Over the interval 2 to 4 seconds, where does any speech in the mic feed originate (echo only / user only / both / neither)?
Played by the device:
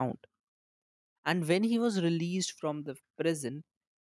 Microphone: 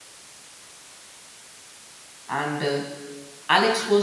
user only